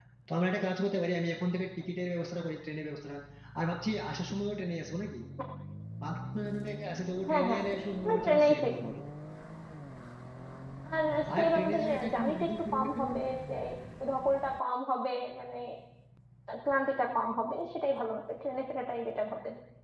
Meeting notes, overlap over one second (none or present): present